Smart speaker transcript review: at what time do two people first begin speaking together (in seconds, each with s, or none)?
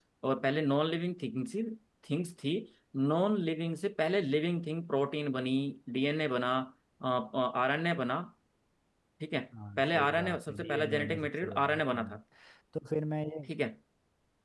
9.8 s